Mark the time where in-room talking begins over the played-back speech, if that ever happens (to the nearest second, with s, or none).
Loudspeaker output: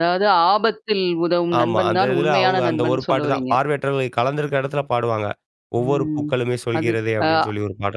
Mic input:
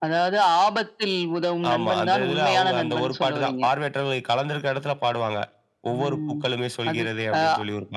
none